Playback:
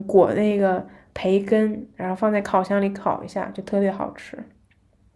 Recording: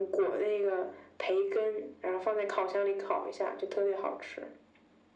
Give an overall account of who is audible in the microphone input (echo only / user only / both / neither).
echo only